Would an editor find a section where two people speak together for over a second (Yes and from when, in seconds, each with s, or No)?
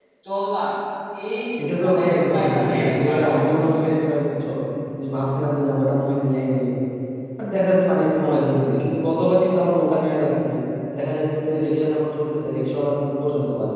Yes, from 1.8 s